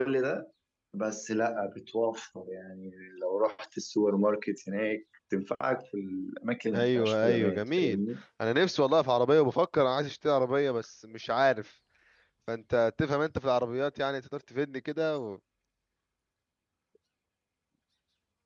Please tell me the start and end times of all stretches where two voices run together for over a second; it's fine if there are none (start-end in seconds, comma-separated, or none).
6.7-8.0